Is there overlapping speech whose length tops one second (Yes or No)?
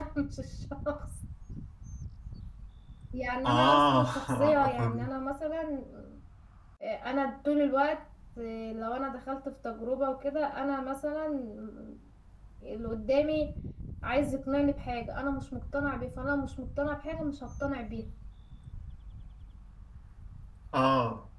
Yes